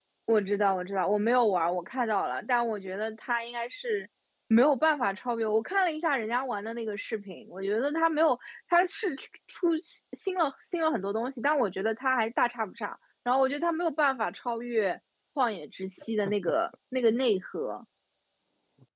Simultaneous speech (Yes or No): No